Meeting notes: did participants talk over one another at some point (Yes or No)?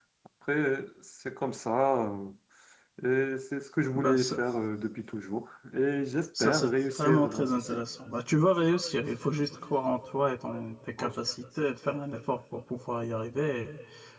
Yes